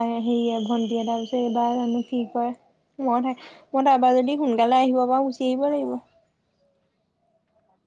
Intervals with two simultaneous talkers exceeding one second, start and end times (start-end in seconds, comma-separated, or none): none